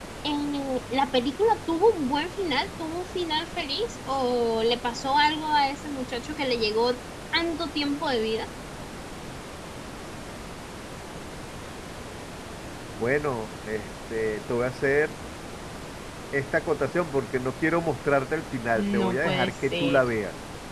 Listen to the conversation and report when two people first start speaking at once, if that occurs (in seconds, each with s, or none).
18.8 s